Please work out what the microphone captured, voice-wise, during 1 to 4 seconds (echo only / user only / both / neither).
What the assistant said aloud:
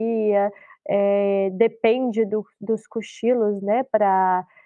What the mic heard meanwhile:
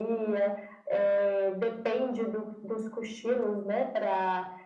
echo only